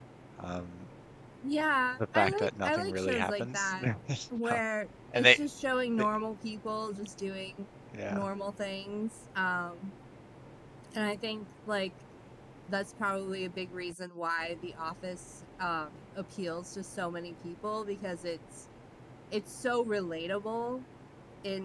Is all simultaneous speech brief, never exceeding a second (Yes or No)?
No